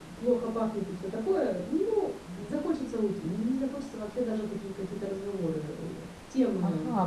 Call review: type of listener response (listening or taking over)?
taking over